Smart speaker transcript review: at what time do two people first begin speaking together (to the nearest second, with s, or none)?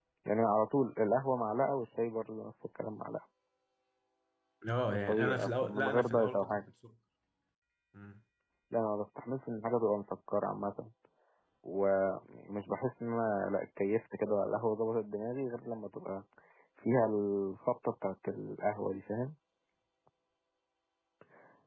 5 s